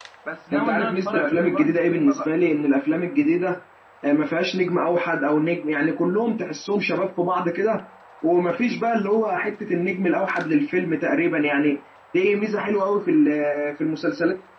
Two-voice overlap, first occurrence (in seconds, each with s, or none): 0.5 s